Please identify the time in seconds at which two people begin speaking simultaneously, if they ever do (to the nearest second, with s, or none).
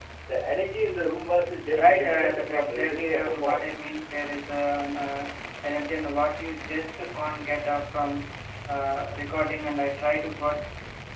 2 s